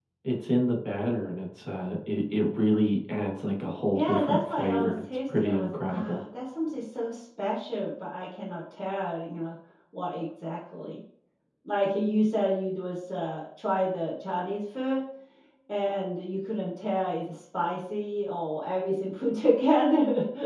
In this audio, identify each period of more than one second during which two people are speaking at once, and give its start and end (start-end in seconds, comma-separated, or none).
3.9-6.2